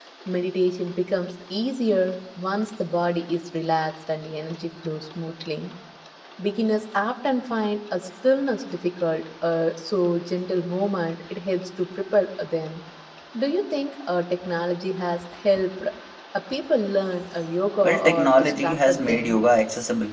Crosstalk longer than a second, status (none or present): present